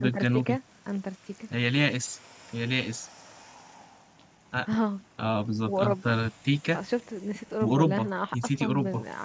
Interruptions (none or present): present